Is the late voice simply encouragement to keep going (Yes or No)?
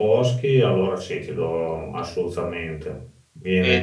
No